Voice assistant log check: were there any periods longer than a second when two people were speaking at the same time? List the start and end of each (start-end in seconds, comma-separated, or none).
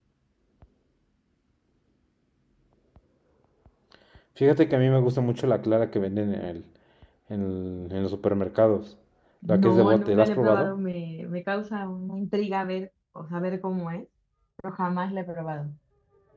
9.5-10.8